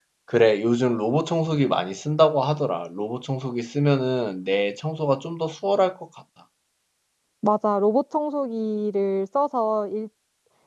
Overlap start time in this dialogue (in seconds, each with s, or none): none